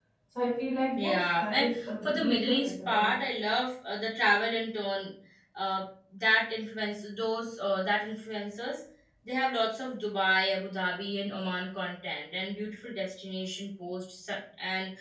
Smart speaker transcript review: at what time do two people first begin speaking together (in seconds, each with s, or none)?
1.0 s